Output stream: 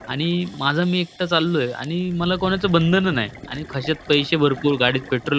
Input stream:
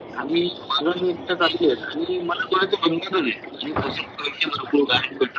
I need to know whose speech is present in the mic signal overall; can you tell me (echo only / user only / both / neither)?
echo only